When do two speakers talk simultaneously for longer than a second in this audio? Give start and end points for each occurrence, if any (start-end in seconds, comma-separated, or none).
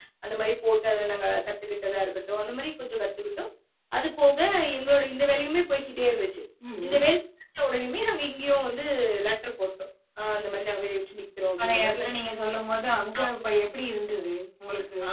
none